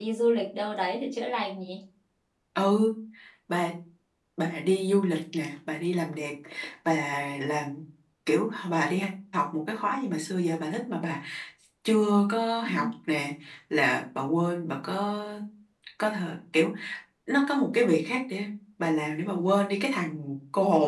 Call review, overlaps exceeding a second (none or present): none